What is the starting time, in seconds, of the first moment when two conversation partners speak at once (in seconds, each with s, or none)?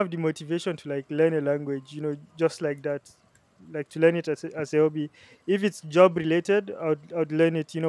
none